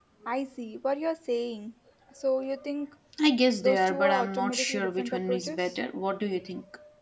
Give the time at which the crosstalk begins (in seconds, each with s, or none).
3.6 s